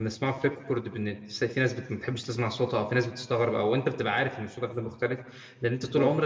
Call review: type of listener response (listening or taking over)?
listening